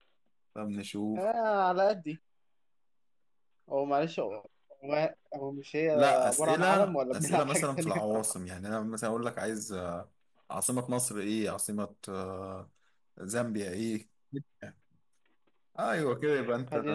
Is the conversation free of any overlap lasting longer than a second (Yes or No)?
No